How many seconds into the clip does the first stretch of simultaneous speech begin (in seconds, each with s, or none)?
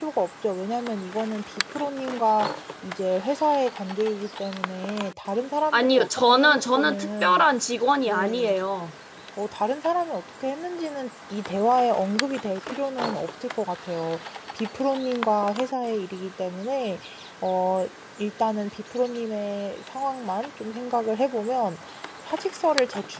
5.7 s